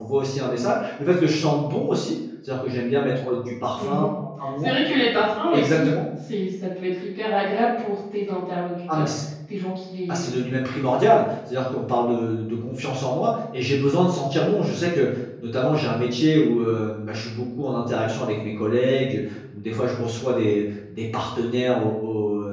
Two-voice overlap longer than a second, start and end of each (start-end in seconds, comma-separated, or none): none